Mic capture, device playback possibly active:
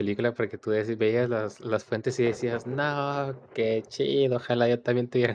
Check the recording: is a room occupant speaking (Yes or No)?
Yes